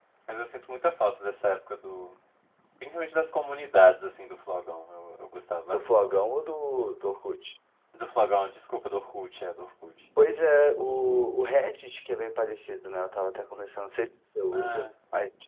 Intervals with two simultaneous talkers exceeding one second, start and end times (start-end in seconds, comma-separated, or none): none